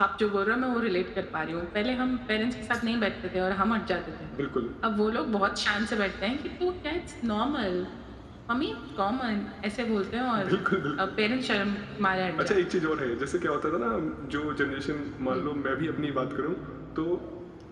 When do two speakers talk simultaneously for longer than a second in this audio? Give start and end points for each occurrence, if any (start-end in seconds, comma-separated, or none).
none